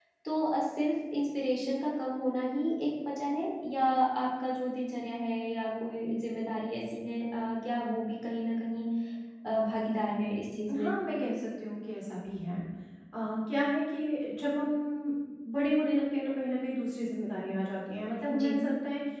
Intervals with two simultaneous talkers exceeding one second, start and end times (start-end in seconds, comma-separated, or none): none